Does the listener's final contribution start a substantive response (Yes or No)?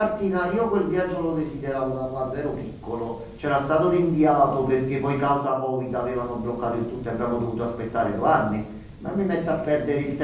No